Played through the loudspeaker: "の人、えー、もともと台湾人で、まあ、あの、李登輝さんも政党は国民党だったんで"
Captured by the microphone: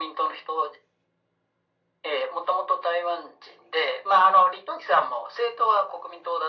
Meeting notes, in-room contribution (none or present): none